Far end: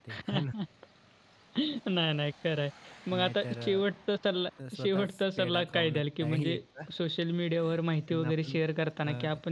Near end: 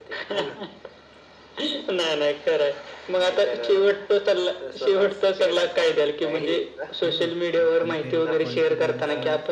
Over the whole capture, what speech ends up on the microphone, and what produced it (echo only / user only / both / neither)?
both